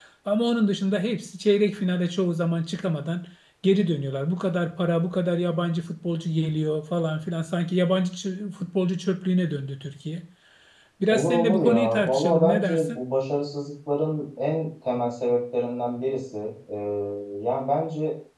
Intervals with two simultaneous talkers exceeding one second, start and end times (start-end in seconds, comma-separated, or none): 11.1-13.0